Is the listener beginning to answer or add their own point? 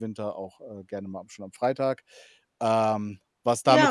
Yes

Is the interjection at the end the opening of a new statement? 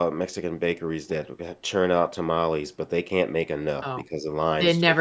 Yes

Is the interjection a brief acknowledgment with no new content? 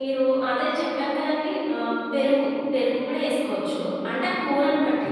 Yes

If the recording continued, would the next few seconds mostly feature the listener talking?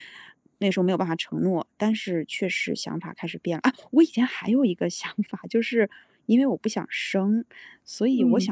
No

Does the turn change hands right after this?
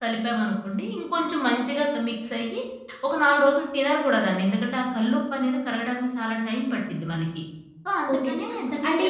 Yes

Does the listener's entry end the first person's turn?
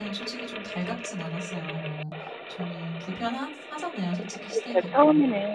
Yes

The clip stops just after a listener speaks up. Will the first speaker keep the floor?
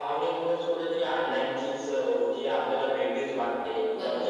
Yes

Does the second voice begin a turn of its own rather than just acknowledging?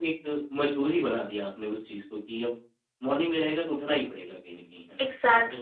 Yes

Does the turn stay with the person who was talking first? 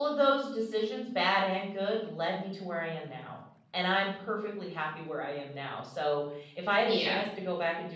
Yes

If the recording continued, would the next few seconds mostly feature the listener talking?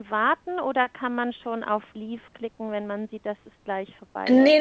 Yes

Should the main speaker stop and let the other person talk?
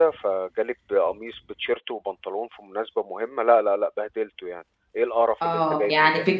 Yes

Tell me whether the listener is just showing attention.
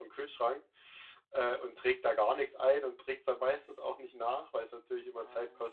Yes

